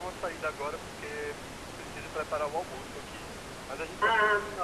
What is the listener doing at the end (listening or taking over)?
listening